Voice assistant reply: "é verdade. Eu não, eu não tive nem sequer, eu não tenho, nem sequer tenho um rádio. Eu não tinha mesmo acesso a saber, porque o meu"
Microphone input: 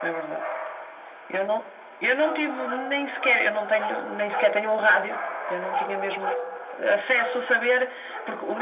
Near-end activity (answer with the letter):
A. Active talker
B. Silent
B